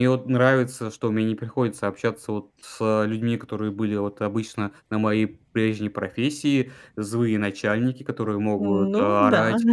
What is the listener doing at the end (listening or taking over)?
listening